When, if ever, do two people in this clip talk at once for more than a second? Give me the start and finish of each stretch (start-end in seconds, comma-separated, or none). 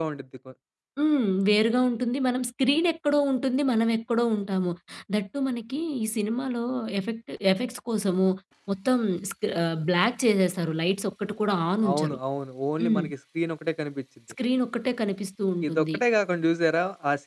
none